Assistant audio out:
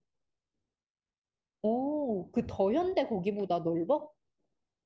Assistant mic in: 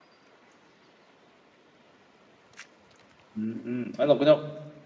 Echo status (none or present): none